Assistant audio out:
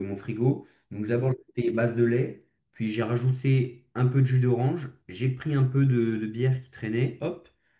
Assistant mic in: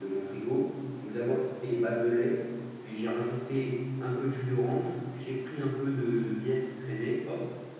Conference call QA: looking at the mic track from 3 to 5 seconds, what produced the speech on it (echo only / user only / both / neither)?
echo only